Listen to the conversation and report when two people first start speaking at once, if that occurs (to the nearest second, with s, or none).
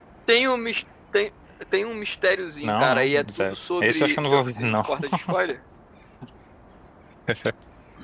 3 s